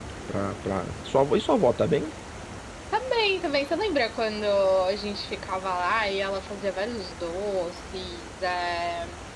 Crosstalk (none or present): none